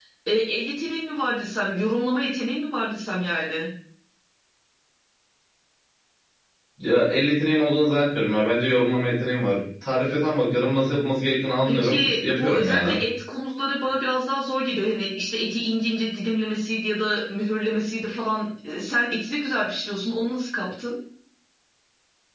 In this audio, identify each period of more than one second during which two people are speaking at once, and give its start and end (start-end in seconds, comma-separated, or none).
11.7-13.0